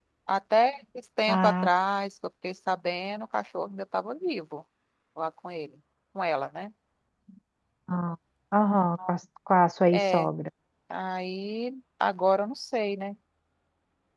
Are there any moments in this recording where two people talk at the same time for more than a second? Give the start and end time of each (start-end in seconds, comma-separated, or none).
none